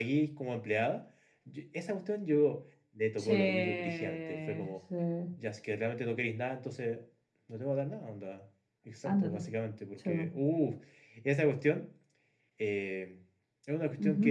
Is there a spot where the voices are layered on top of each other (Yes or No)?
Yes